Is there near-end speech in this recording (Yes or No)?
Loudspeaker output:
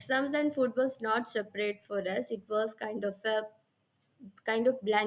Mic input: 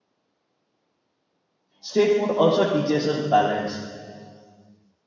Yes